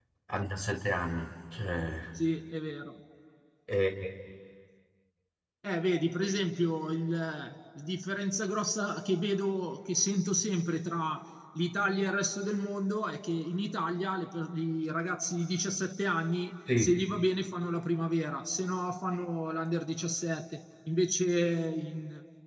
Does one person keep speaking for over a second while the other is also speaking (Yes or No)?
No